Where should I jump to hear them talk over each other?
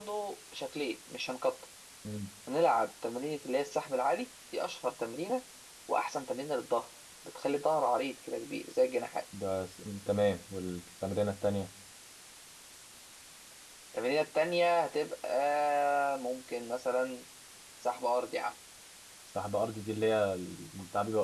none

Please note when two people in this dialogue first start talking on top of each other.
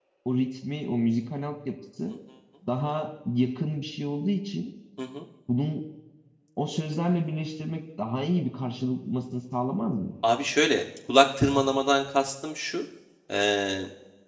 none

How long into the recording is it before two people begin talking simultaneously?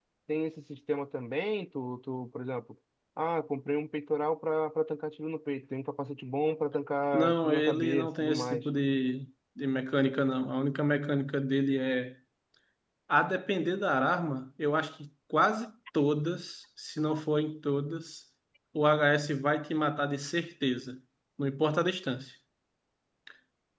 7.1 s

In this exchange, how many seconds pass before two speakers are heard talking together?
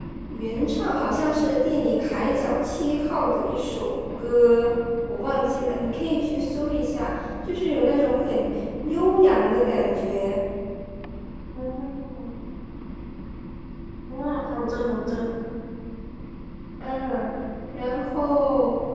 none

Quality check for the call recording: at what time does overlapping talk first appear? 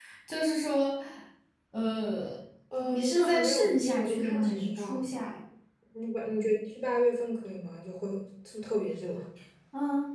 2.8 s

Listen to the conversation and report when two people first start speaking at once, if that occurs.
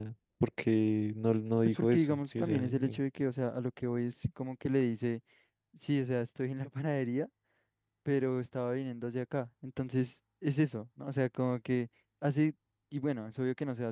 1.6 s

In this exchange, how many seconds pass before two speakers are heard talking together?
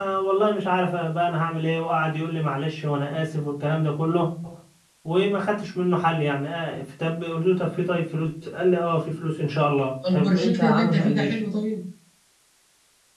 10.0 s

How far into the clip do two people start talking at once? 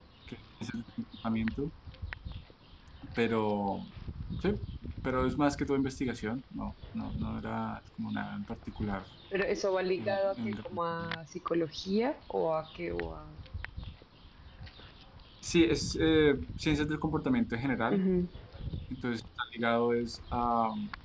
10.0 s

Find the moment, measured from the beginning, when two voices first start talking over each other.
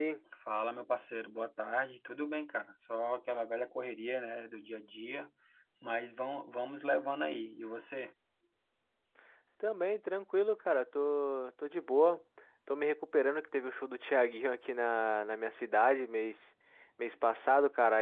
none

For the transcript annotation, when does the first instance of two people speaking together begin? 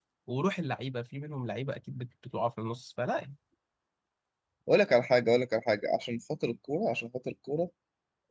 none

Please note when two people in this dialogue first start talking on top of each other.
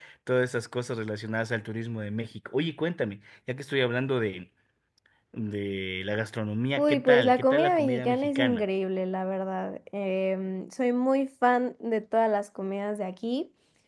6.8 s

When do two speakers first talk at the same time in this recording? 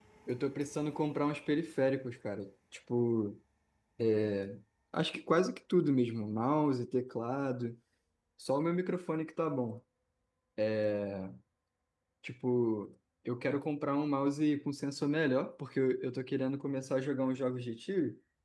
none

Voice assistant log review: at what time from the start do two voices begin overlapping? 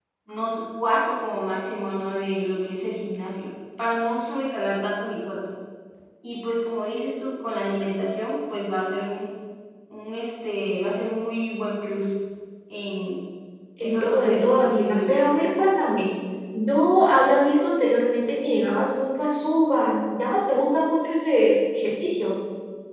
13.8 s

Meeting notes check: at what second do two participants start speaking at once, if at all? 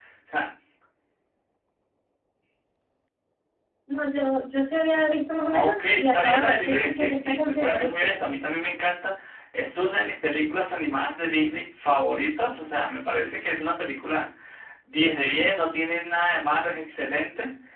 5.4 s

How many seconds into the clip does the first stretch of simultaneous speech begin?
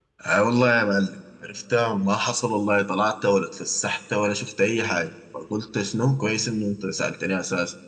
none

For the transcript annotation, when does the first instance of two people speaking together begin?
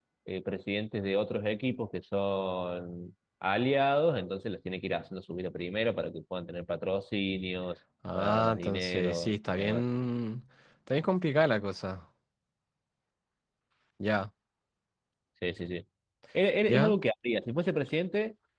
8.2 s

